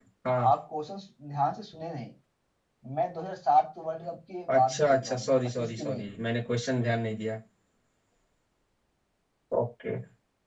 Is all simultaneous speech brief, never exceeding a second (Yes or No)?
No